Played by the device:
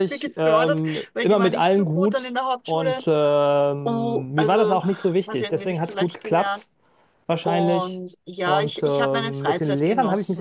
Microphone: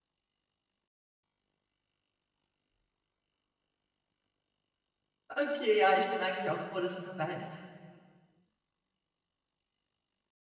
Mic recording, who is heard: user only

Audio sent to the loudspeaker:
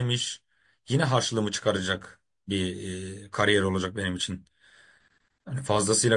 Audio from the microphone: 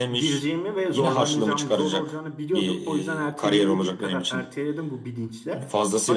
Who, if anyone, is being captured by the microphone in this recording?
both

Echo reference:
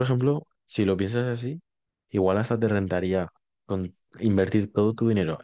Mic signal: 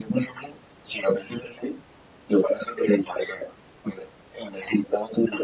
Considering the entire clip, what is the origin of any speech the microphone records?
echo only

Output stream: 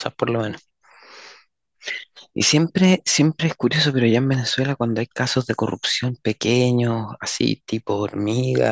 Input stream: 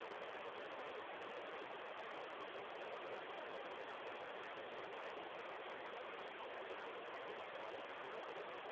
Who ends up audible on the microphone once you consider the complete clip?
neither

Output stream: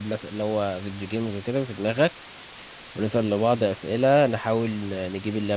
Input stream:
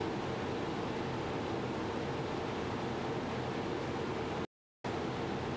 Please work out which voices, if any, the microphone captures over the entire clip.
neither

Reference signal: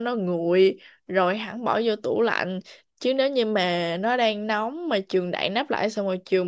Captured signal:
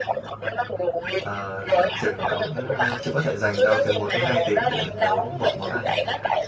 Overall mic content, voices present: both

